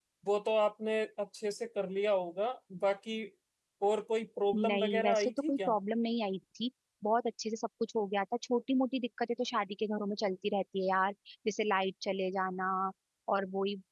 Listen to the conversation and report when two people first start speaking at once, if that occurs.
5 s

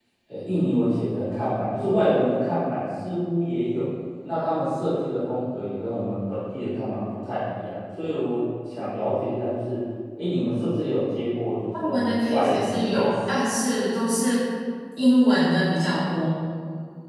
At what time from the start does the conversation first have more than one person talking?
12 s

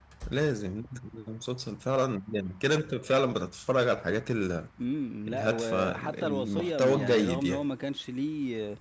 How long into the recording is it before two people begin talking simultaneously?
5 s

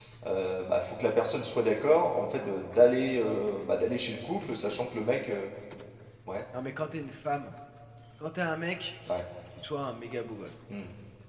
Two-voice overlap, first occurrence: none

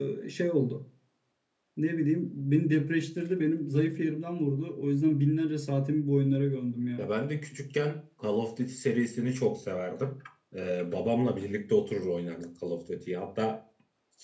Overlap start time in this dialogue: none

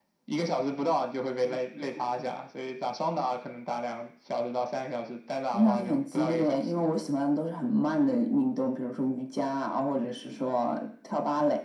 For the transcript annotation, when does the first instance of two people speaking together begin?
6 s

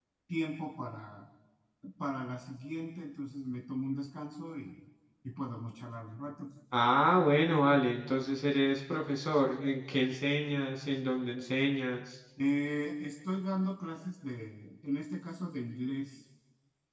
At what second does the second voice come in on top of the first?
none

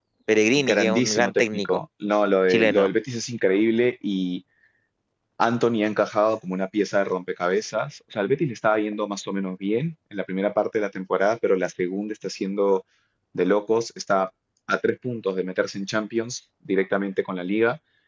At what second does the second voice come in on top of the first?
1 s

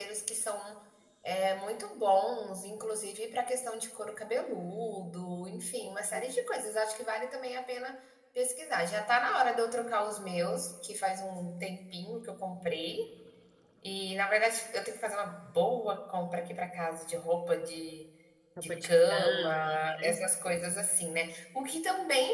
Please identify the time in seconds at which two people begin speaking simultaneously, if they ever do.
19 s

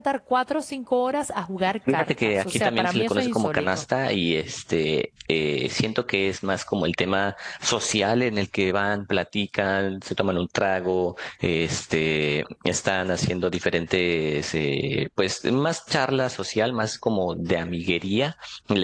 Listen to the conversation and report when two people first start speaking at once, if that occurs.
2 s

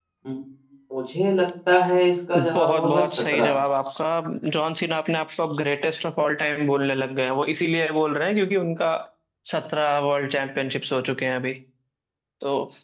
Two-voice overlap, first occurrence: 2 s

